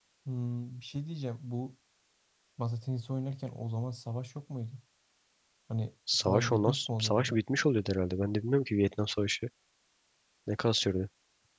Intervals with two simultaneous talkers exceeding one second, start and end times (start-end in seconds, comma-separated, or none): 6.2-7.4